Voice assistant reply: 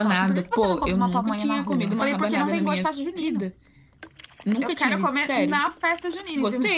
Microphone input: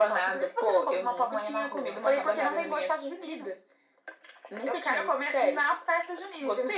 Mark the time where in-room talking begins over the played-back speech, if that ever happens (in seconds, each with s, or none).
none